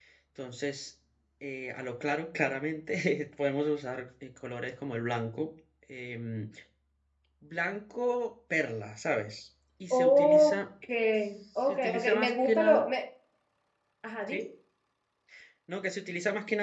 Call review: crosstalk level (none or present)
present